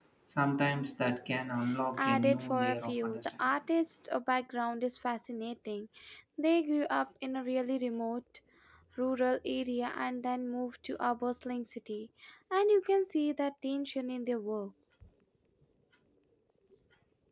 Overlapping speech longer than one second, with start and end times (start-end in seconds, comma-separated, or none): 2.0-3.5